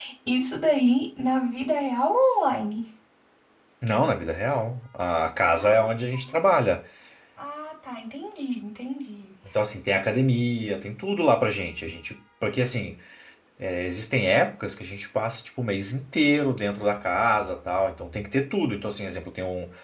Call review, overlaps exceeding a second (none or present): none